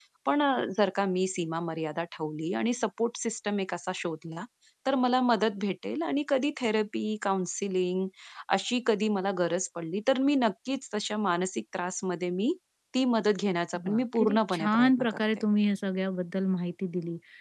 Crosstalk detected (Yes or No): Yes